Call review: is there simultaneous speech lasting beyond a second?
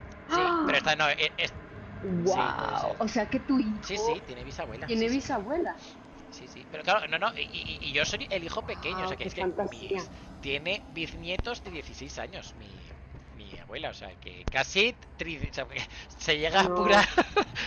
Yes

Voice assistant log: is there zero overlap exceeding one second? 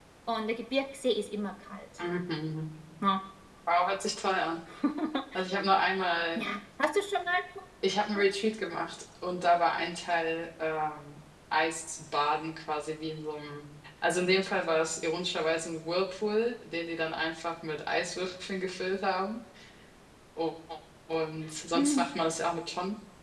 Yes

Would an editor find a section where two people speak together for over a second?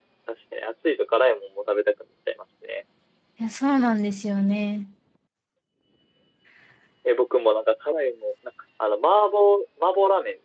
No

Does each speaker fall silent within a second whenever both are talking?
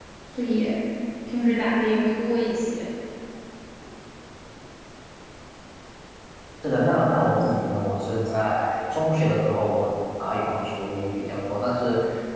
Yes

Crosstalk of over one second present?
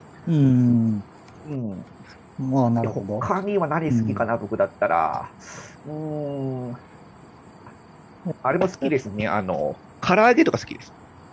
No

